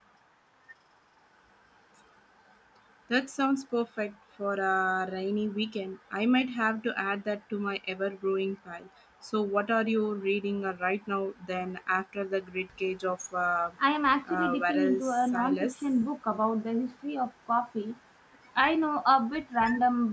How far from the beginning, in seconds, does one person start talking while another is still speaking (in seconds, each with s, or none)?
14.3 s